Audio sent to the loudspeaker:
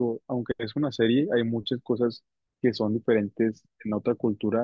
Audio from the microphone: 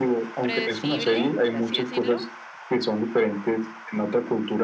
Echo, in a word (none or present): present